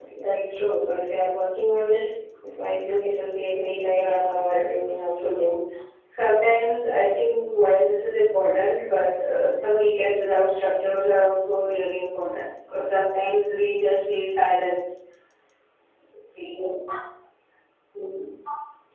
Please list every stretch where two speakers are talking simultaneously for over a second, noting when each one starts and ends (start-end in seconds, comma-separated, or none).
3.8-5.6